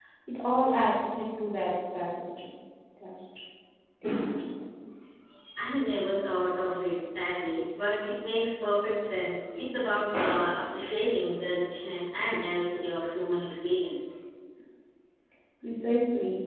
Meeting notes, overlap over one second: none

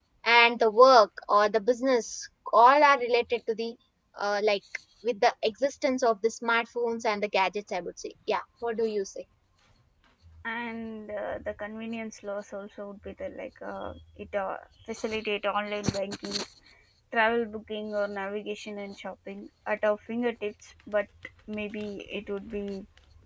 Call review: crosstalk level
none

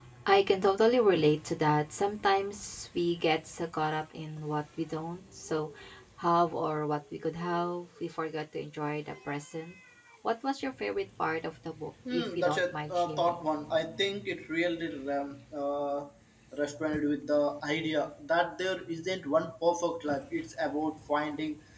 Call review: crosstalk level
present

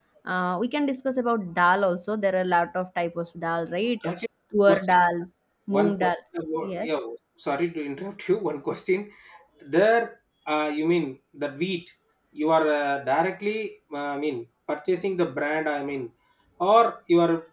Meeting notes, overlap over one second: none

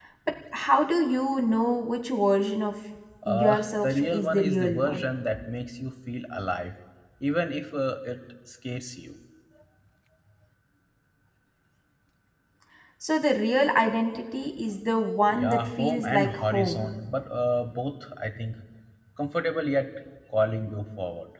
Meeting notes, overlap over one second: present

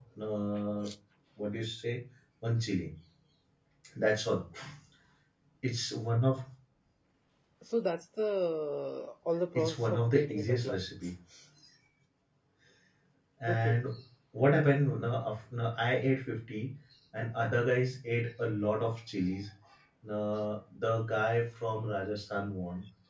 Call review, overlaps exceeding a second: present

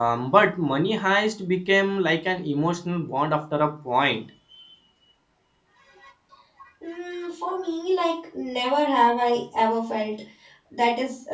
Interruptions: none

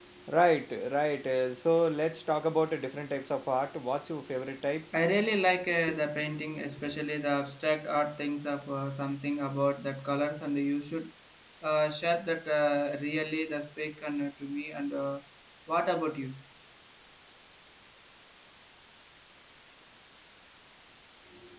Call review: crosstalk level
none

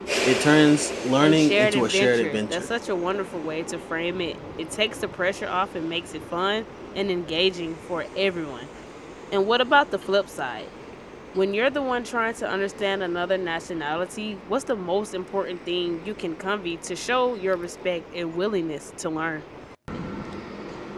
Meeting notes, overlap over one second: present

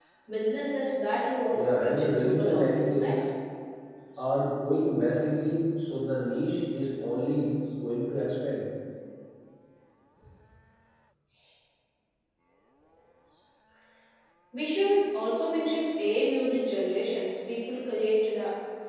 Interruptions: present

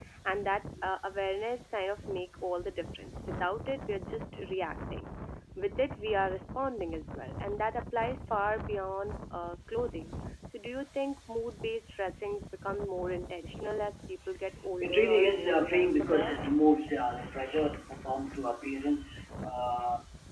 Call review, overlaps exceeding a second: present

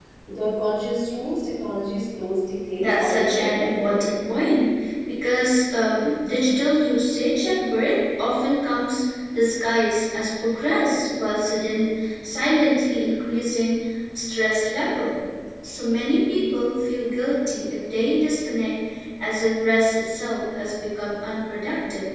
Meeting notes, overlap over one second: present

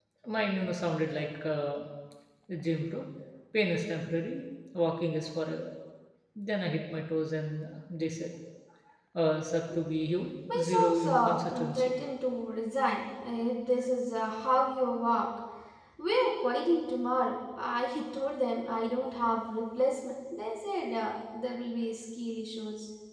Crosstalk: present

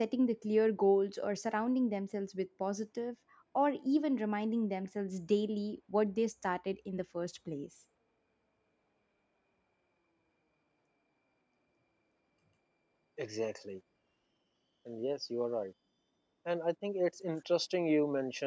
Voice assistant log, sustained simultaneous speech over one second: none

